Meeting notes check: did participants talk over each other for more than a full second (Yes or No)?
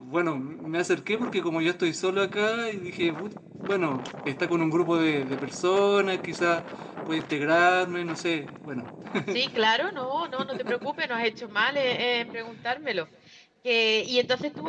No